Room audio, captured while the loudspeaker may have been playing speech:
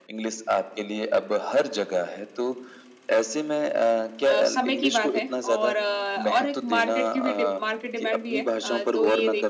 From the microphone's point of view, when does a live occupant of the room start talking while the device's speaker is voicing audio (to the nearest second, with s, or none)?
4 s